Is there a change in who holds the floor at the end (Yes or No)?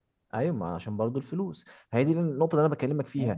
No